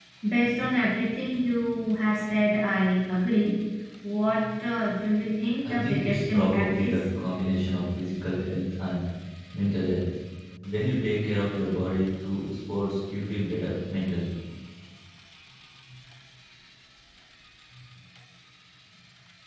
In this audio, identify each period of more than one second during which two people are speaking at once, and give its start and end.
5.7-6.9

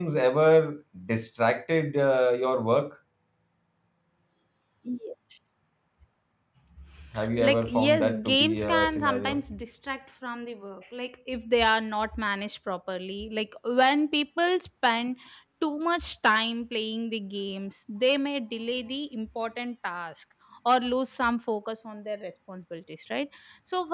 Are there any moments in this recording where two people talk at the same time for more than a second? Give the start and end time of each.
7.3-9.4

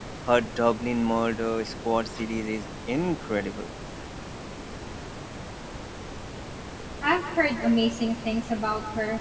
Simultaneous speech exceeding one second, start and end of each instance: none

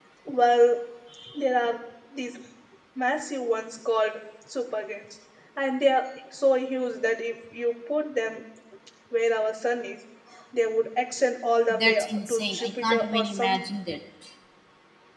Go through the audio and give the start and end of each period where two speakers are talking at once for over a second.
11.7-13.7

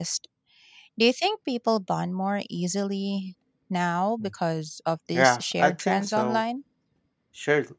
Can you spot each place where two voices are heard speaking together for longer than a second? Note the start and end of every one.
5.1-6.4

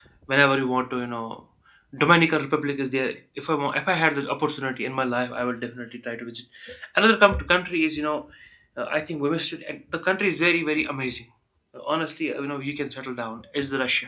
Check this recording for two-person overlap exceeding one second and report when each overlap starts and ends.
none

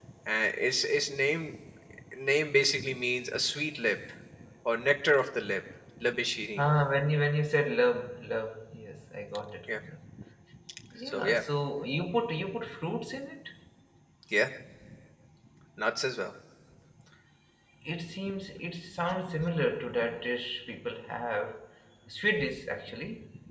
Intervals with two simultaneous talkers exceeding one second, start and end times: none

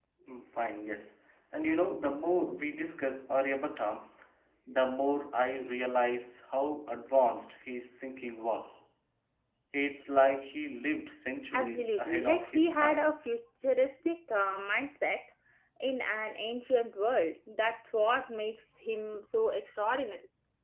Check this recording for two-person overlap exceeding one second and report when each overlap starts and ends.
11.5-13.1

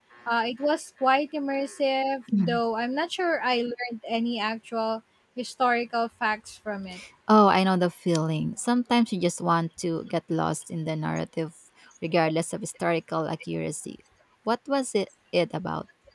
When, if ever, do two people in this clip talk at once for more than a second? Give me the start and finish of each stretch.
none

